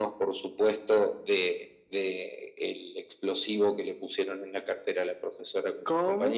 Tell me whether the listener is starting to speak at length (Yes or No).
Yes